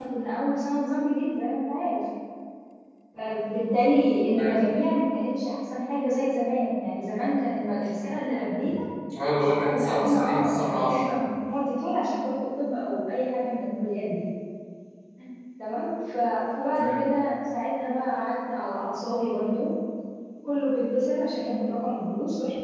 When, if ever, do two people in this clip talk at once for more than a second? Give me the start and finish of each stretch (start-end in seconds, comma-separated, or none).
9.3-11.2